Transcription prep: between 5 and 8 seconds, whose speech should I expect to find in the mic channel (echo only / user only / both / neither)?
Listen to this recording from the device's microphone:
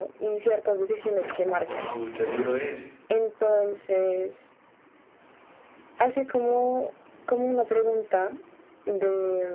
echo only